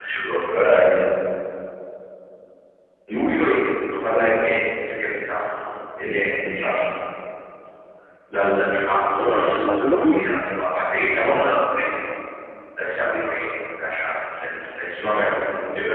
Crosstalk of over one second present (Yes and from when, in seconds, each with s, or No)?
Yes, from 9.2 s